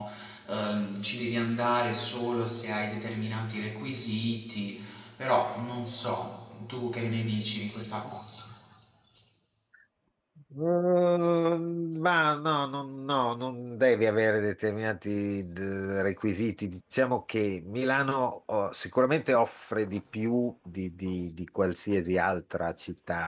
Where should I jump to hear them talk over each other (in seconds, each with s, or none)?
none